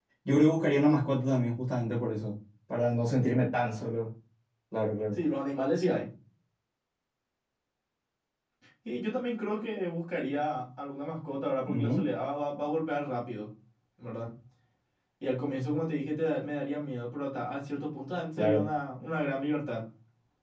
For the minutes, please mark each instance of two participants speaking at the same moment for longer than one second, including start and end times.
none

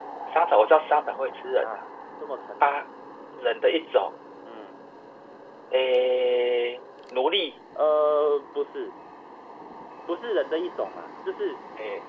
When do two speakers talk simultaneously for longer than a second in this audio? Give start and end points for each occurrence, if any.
none

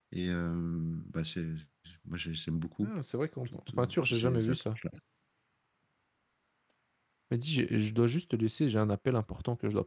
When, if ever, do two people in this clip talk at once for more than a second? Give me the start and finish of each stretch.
3.4-4.8

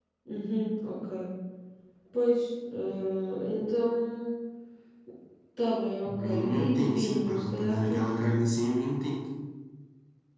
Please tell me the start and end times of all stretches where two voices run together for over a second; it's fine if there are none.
6.0-8.2

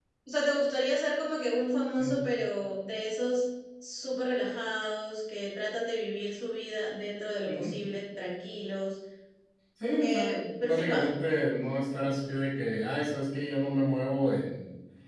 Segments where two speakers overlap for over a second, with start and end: 9.8-11.1

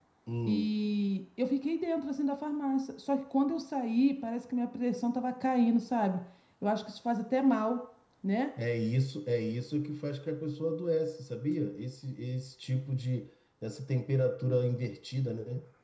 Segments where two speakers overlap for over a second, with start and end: none

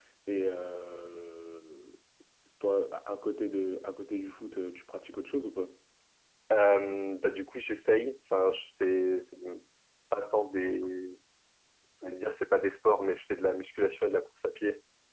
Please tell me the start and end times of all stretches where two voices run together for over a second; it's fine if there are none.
none

